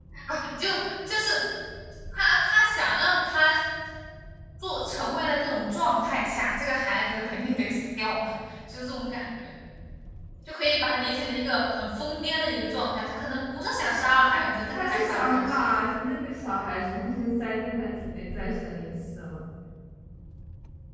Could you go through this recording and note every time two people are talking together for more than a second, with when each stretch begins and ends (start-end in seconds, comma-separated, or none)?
14.2-15.8